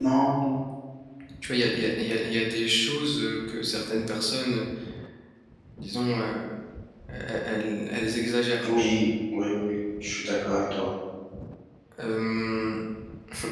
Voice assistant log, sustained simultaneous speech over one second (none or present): none